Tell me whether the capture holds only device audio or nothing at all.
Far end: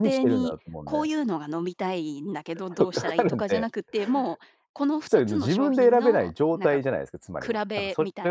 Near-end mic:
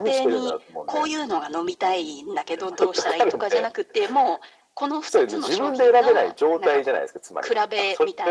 Yes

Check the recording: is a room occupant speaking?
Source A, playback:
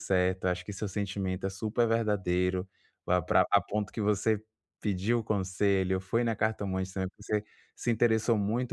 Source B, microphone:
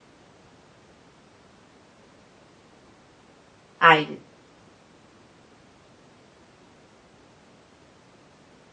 Yes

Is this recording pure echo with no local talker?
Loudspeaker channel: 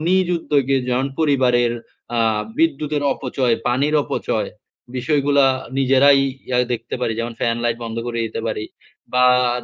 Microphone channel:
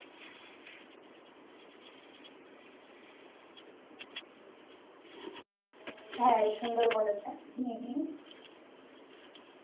No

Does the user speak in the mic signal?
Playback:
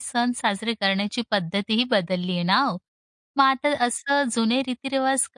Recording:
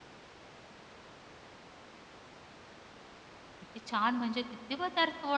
Yes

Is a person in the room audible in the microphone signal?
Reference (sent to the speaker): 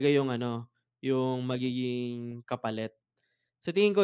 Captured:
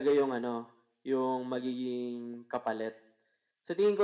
No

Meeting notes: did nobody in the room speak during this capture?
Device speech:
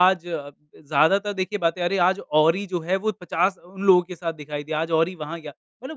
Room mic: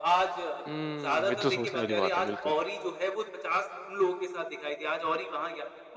No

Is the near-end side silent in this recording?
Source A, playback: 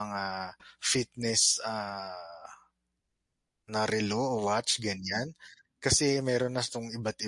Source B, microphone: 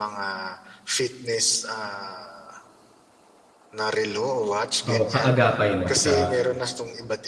No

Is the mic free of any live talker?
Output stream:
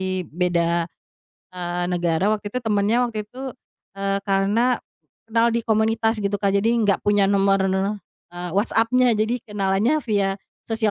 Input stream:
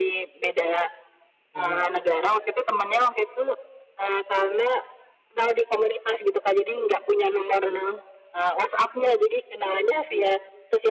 No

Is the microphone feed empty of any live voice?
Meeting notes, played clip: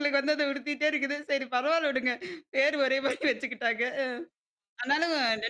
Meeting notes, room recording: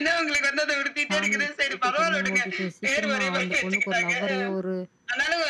No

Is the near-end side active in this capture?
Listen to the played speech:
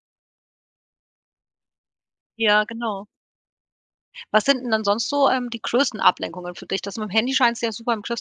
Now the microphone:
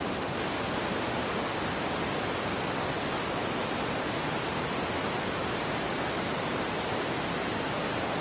No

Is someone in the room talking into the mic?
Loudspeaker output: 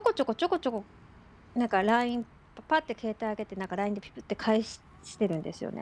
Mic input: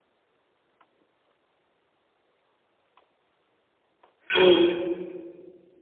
Yes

